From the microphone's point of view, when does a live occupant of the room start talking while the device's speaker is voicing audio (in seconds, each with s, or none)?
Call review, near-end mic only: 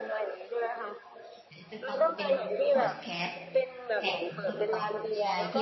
1.5 s